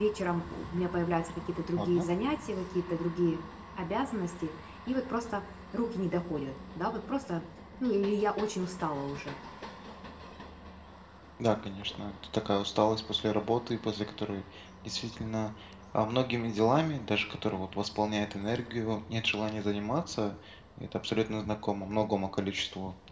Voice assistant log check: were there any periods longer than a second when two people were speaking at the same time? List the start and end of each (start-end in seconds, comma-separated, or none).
none